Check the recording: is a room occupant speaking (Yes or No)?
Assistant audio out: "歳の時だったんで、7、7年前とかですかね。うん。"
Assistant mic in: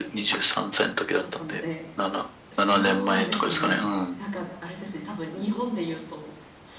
Yes